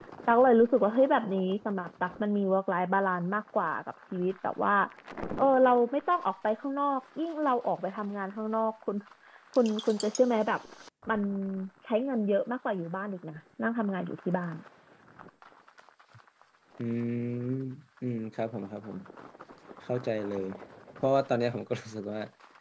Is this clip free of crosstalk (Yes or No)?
Yes